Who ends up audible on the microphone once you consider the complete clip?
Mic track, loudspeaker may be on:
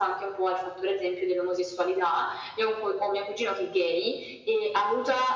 echo only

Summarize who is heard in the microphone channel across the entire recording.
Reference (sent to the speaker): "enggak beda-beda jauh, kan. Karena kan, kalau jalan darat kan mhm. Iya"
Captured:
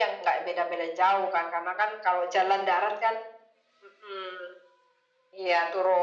echo only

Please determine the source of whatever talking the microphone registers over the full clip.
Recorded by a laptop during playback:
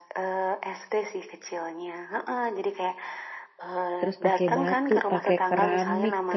both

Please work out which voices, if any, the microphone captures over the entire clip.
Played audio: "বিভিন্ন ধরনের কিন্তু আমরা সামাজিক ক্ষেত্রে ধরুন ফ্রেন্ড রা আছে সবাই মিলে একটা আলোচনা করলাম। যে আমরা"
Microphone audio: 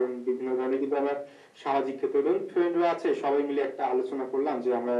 echo only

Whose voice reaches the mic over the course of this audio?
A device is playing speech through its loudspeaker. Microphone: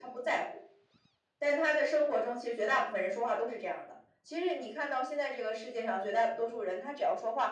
echo only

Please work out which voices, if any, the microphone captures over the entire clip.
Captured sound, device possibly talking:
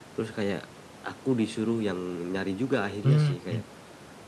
both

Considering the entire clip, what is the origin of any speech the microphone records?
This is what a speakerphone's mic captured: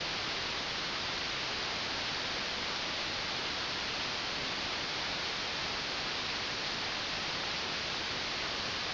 neither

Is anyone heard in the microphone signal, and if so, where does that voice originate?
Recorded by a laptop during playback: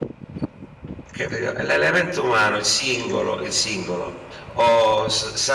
user only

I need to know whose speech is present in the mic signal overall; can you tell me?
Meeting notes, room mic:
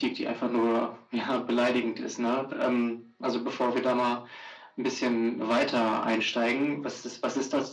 echo only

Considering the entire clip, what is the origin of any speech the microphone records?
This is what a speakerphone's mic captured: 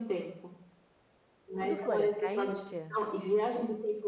both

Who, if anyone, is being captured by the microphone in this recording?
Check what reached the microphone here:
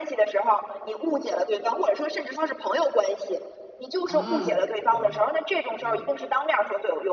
both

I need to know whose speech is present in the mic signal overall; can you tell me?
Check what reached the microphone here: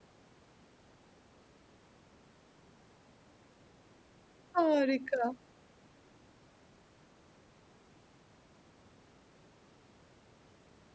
user only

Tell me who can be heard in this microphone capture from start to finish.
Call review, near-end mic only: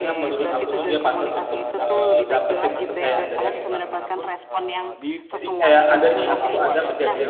both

